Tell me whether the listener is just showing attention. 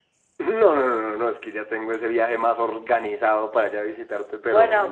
No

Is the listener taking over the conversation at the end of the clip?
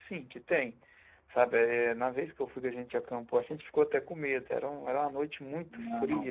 No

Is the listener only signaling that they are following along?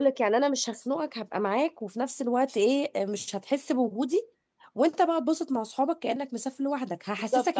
No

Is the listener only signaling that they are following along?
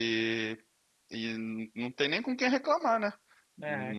Yes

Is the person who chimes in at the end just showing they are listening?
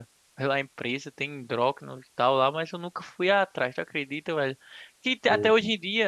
Yes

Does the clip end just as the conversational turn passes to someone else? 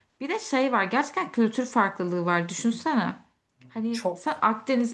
No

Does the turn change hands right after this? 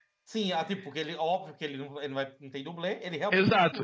Yes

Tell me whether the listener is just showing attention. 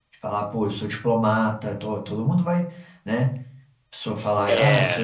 Yes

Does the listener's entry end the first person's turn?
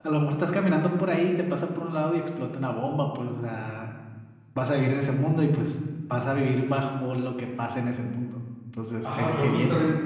Yes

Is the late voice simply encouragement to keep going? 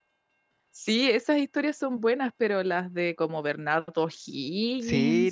No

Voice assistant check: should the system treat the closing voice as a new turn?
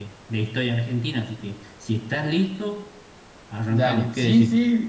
Yes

